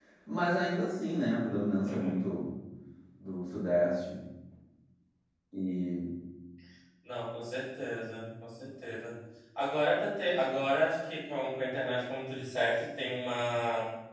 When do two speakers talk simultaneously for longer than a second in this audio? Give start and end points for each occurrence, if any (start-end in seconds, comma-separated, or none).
none